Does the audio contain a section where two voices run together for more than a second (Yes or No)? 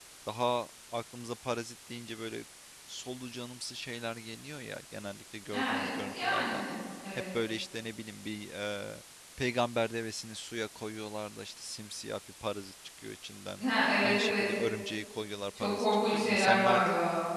Yes